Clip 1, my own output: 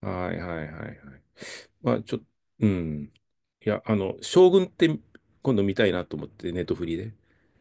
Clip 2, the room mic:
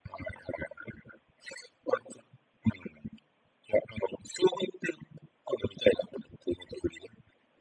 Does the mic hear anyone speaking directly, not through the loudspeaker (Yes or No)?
No